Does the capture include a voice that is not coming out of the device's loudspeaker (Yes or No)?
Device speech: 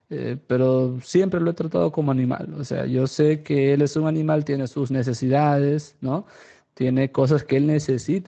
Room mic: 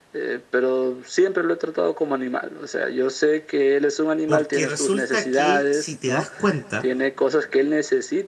Yes